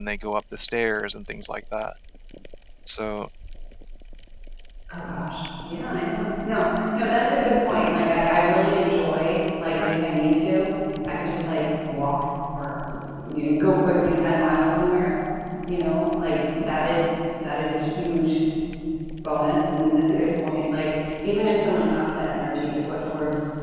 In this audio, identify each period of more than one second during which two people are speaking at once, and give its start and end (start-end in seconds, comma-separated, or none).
none